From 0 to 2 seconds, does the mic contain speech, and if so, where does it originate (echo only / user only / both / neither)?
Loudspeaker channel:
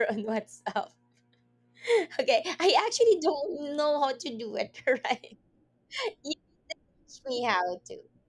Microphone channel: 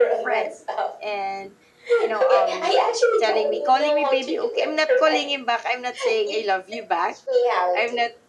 both